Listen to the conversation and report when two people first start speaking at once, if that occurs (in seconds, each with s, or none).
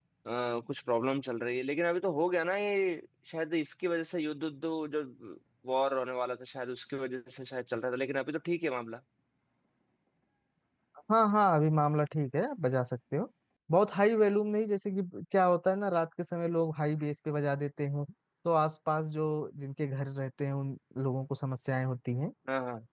none